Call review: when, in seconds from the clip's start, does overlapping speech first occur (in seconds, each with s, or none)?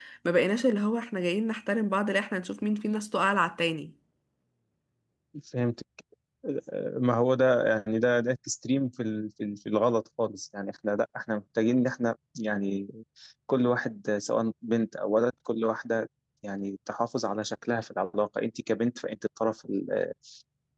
none